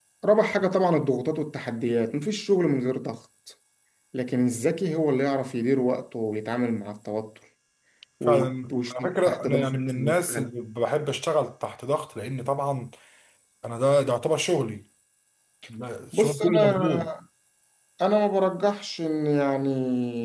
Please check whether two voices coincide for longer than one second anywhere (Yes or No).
Yes